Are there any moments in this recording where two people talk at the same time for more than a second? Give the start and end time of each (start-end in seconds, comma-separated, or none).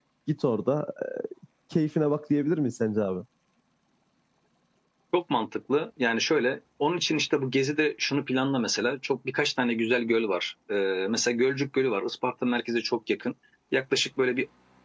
none